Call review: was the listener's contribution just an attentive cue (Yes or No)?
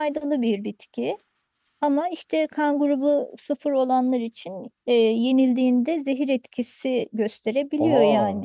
Yes